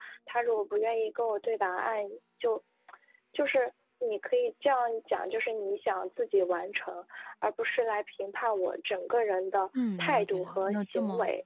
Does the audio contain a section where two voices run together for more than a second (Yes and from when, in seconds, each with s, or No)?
Yes, from 9.7 s